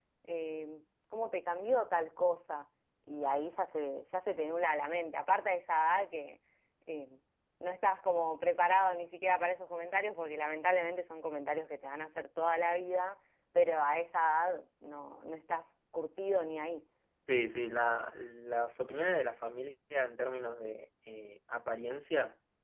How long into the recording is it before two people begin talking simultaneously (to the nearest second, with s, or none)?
none